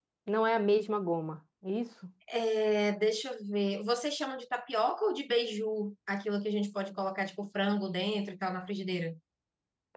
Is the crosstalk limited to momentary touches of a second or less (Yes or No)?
Yes